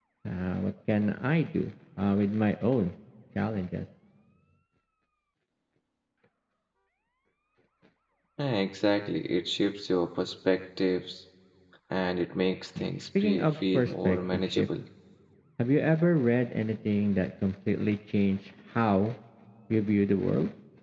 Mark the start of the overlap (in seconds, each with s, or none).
13.2 s